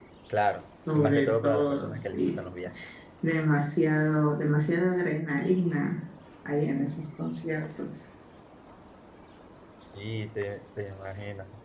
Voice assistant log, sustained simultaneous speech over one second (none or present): present